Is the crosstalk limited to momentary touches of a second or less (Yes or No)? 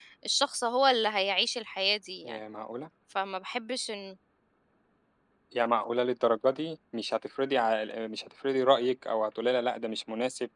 Yes